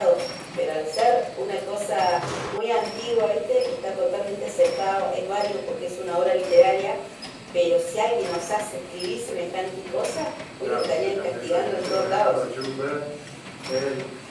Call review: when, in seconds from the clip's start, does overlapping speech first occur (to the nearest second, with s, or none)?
11 s